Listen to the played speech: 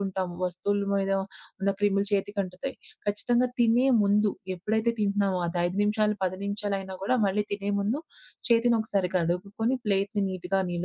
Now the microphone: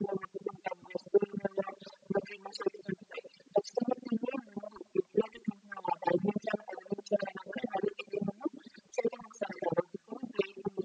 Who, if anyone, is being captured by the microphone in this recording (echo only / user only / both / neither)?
echo only